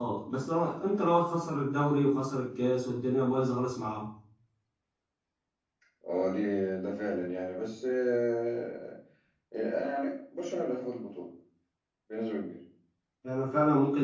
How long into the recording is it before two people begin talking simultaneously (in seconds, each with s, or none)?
none